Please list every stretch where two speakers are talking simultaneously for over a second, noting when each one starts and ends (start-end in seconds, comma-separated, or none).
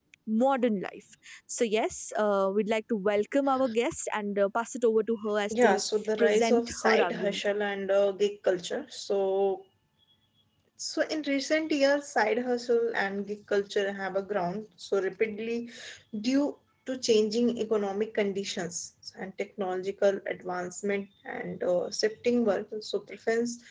6.2-7.4